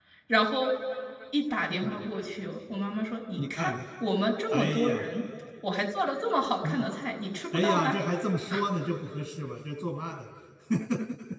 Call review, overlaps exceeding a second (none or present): none